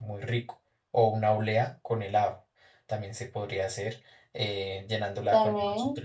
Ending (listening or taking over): listening